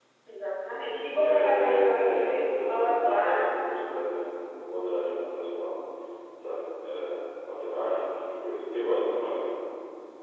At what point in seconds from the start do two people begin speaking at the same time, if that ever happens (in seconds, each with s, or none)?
1.1 s